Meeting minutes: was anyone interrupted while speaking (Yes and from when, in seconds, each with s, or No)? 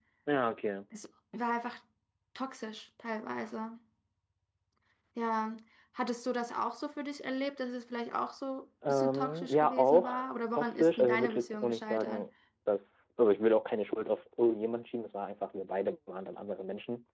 Yes, from 8.9 s